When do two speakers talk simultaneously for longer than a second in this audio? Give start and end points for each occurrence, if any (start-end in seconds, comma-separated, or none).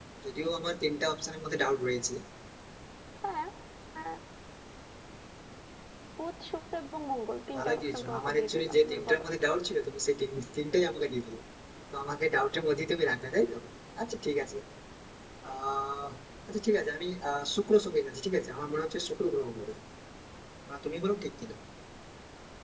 7.6-9.2